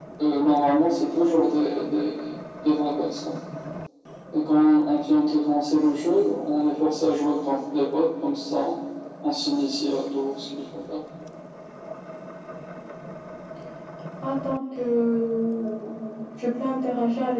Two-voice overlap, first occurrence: none

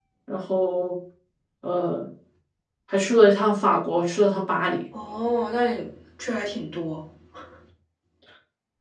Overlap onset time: none

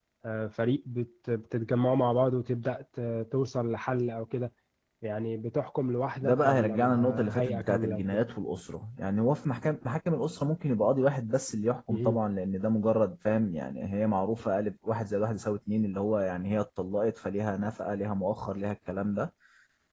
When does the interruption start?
6.2 s

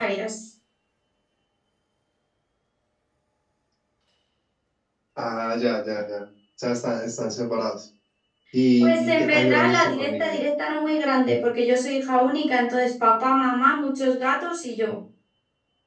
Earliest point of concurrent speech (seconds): 8.8 s

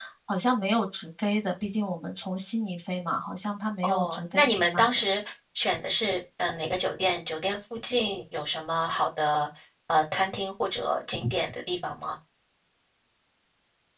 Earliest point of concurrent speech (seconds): 3.8 s

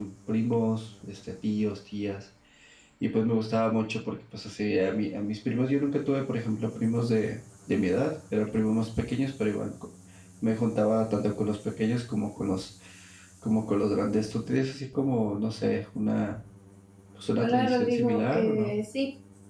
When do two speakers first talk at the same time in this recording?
17.4 s

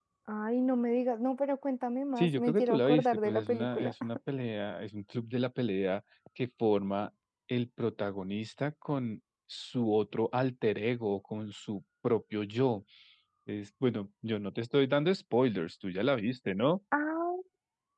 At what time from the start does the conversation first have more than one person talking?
2.2 s

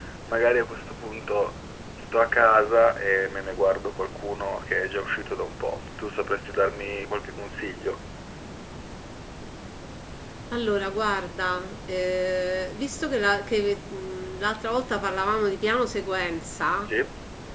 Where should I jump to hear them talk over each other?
none

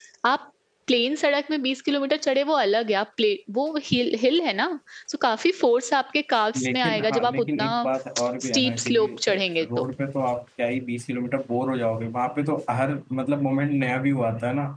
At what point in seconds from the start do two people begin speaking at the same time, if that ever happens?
6.5 s

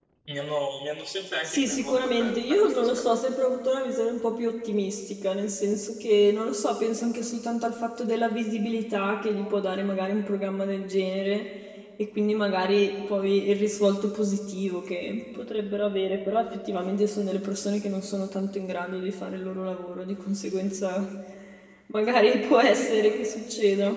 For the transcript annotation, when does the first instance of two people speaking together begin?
1.4 s

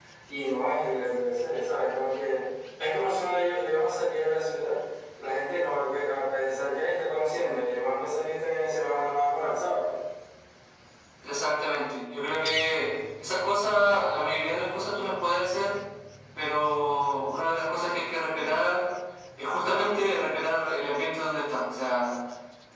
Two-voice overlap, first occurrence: none

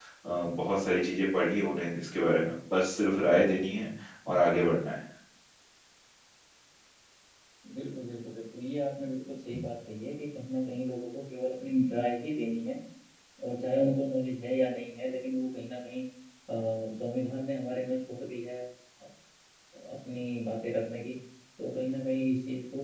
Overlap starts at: none

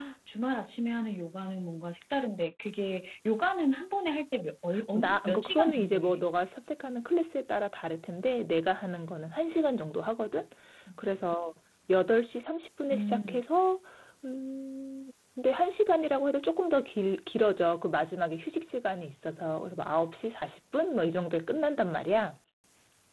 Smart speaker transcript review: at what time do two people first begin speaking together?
4.9 s

